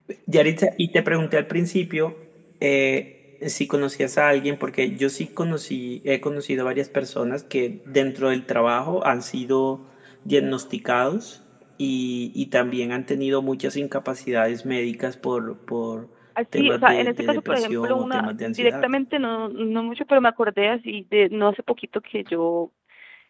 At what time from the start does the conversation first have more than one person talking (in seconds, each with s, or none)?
16.6 s